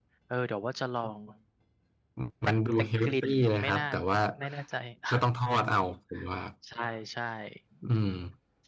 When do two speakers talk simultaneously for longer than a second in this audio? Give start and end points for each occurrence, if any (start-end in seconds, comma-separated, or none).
2.5-3.8